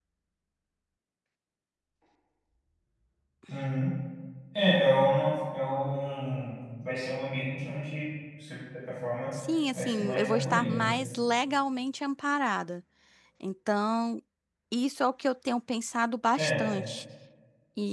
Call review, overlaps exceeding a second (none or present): present